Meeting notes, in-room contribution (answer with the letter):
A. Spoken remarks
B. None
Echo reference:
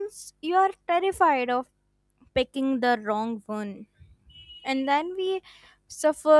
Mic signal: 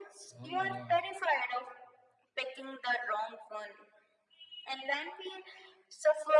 A